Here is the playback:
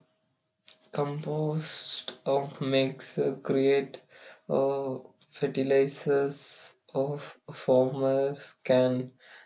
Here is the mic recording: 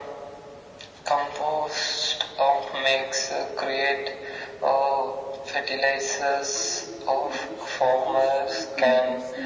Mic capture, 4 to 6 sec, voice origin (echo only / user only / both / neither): echo only